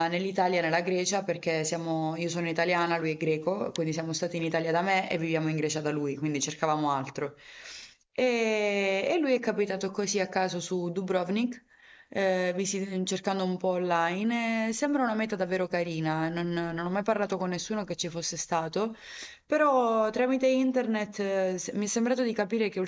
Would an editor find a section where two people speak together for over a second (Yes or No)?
No